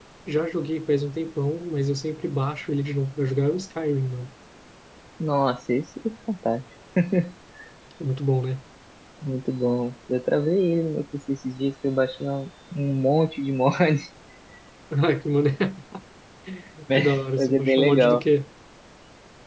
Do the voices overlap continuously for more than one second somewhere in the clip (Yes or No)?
Yes